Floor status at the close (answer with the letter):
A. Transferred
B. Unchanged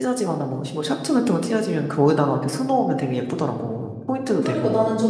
A